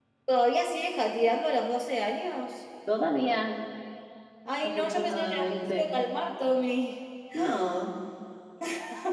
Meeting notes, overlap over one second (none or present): present